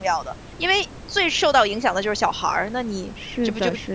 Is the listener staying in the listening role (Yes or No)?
No